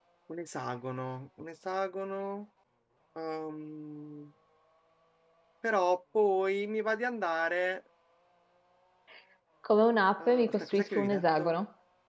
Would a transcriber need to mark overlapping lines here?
Yes, from 10.2 s

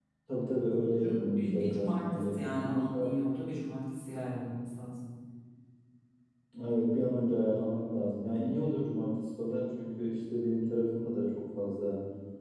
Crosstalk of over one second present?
Yes, from 1.0 s

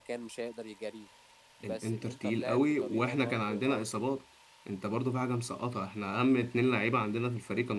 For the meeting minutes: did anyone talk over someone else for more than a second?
Yes, from 1.6 s

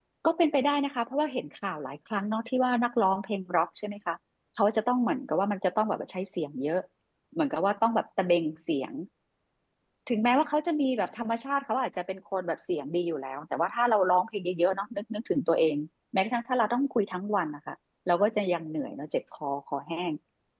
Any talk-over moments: No

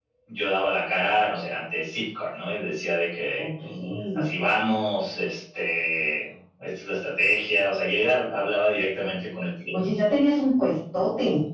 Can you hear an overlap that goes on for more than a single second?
No

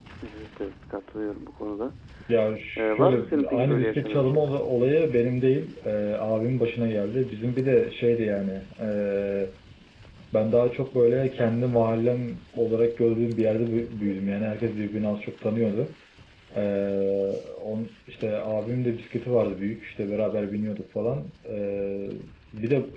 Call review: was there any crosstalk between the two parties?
Yes, from 2.8 s

